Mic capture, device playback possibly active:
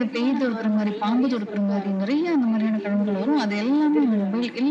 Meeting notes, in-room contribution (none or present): present